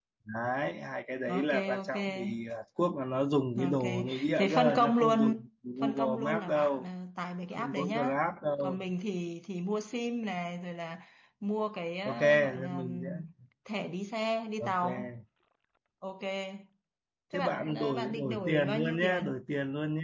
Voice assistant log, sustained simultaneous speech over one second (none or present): present